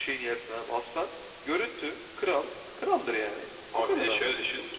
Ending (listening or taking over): taking over